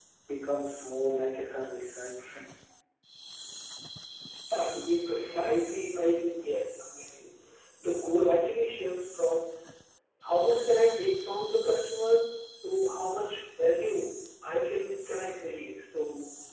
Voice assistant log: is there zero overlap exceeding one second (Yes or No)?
Yes